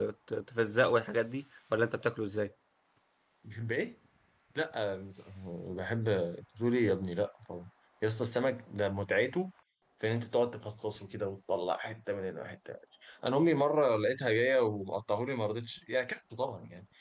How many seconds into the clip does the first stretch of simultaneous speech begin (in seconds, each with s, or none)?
none